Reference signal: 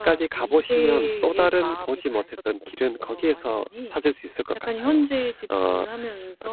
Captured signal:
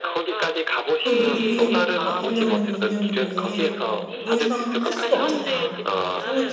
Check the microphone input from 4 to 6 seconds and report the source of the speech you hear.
both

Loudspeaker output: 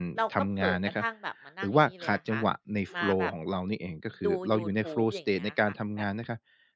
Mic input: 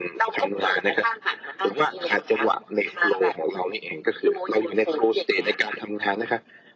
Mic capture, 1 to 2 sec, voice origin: echo only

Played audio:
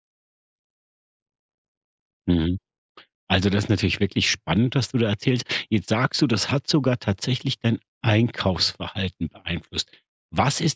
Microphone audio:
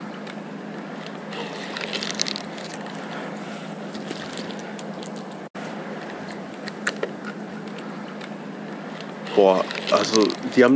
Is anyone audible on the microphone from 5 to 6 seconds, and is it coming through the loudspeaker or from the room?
neither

